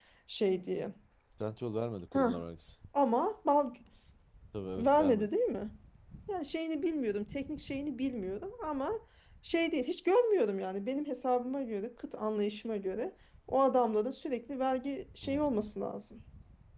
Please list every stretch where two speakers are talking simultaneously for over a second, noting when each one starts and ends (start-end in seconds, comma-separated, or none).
none